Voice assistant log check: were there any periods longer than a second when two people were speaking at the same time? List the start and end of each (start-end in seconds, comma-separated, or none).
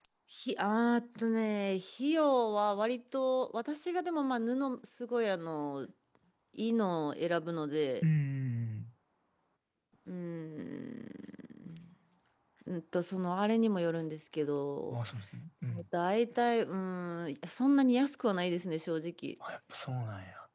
none